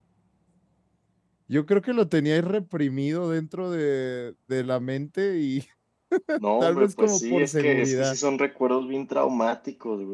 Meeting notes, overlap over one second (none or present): present